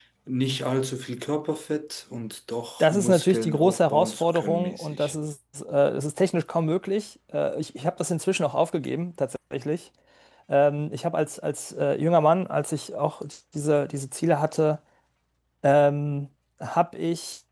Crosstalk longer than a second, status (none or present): present